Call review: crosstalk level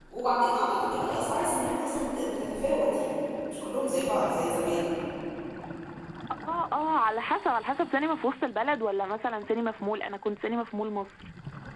none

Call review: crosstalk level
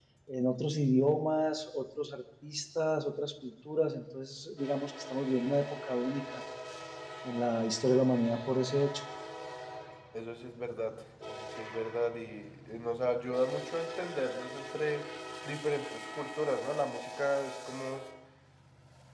none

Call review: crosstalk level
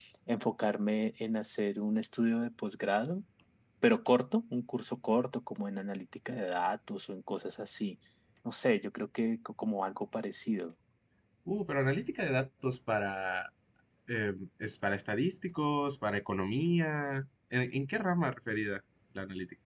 none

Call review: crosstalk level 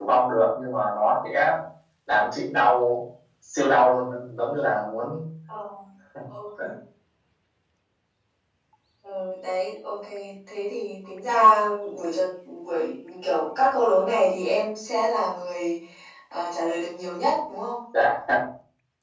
none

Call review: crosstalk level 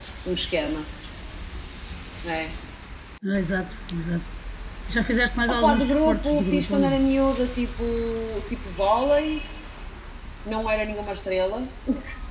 present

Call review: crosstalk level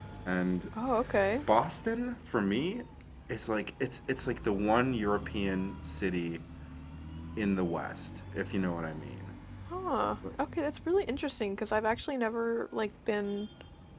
none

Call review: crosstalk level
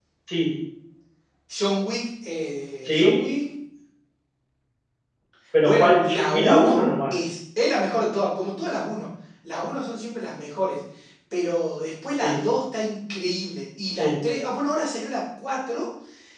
present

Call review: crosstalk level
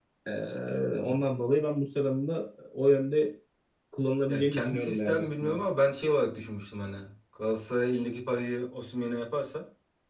present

